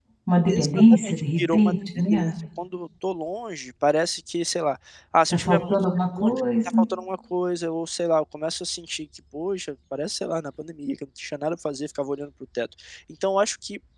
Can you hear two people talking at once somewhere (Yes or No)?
Yes